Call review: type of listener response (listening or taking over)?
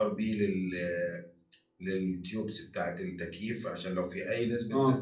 listening